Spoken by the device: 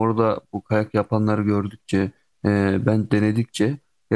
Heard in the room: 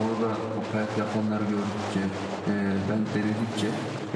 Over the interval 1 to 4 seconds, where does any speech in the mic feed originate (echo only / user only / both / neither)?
echo only